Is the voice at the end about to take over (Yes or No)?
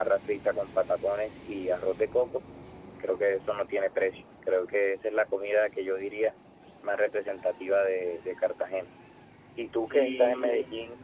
No